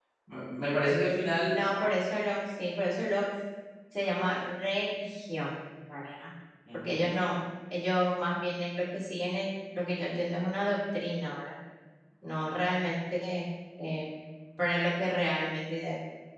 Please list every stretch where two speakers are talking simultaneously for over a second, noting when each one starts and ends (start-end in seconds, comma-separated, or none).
none